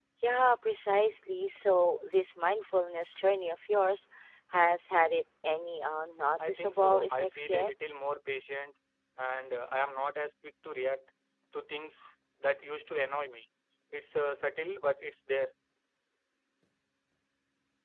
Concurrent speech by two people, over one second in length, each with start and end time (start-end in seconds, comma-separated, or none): 6.5-7.7